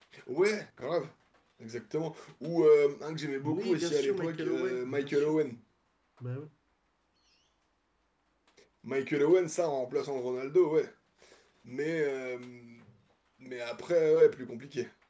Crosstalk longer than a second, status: present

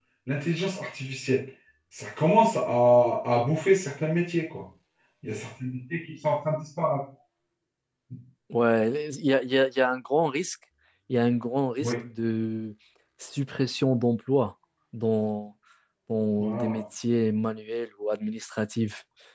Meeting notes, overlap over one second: none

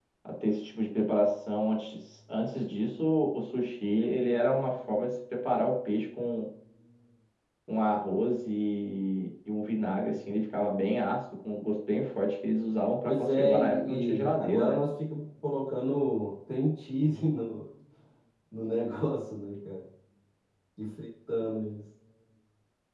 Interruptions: present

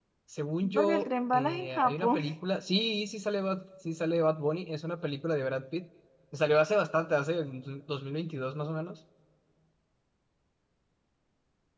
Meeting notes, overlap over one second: present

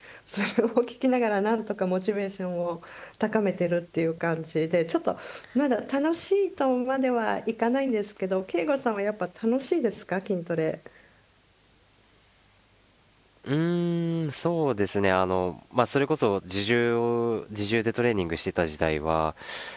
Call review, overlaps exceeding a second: none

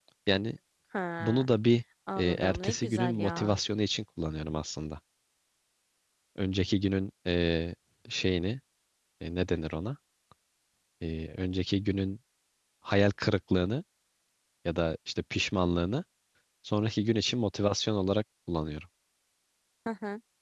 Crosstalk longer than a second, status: present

